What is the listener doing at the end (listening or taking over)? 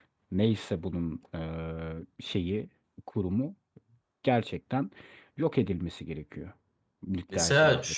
taking over